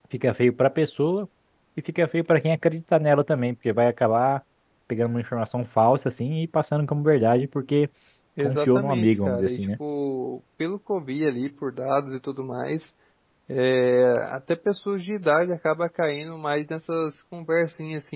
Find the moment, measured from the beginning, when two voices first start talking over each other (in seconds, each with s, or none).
8.4 s